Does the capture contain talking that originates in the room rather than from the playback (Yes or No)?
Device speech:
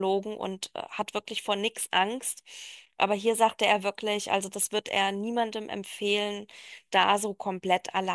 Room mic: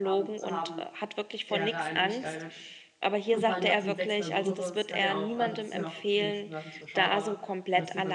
Yes